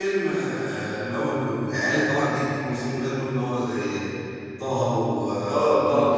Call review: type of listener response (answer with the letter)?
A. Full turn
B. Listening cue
A